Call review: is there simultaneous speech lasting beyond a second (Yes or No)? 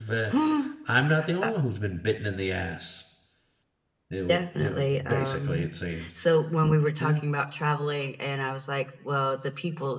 Yes